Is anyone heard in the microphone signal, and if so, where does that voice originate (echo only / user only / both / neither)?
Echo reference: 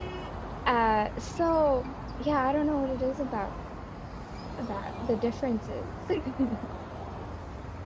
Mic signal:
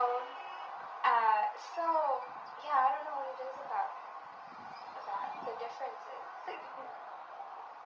echo only